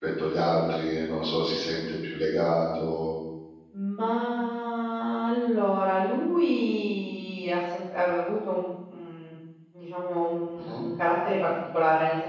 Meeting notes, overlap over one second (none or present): none